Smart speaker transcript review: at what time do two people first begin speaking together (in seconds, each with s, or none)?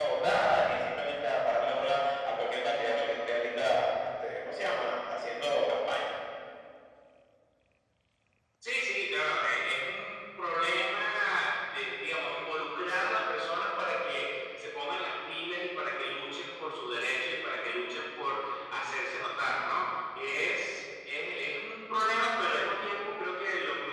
none